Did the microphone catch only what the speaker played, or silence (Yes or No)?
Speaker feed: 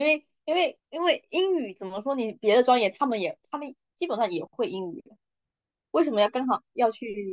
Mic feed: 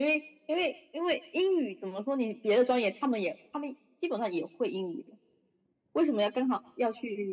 Yes